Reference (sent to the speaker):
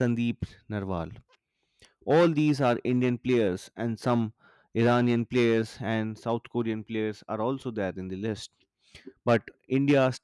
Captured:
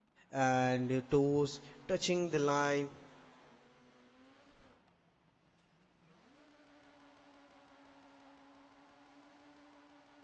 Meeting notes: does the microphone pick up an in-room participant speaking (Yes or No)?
Yes